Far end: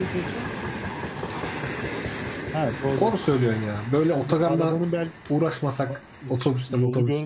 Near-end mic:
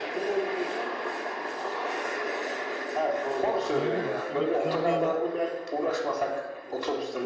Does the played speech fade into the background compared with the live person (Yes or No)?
No